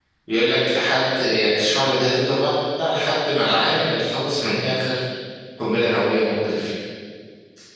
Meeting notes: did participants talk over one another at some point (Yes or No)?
No